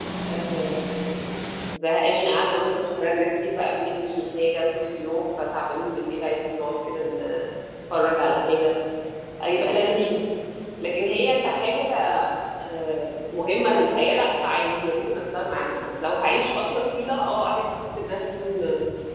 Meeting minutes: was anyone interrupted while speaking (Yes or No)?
No